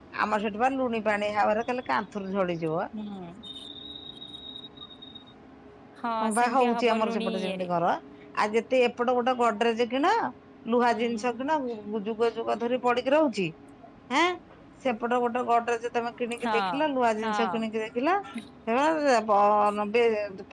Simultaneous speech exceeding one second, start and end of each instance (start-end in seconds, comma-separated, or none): 6.2-7.7